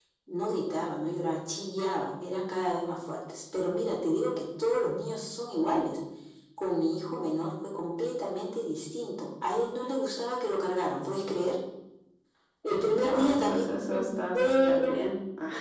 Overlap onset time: 13 s

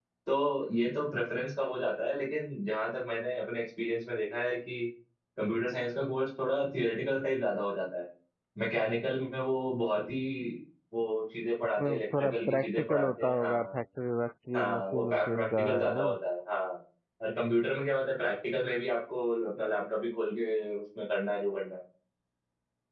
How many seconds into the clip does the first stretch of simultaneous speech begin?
12 s

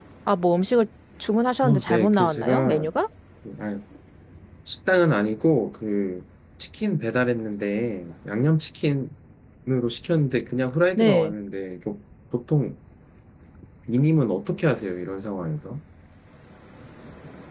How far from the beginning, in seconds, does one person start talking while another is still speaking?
2 s

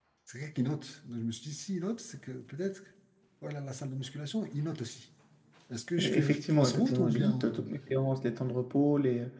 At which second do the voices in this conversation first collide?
6 s

